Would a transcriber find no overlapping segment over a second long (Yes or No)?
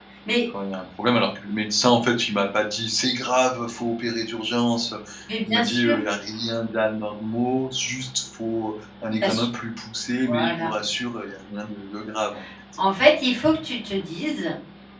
Yes